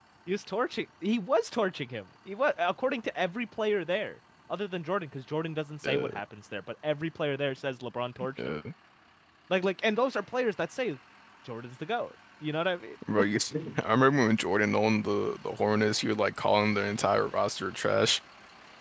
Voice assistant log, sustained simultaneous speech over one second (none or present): none